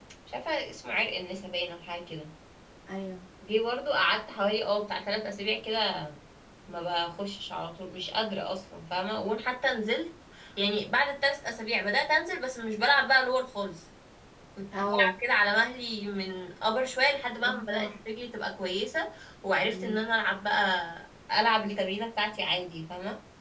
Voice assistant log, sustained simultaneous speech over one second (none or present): none